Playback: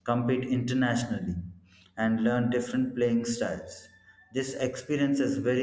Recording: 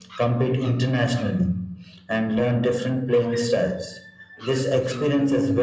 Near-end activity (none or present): present